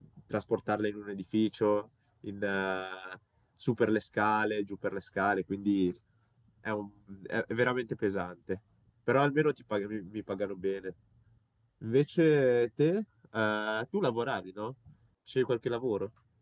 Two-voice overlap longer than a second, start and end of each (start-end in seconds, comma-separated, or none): none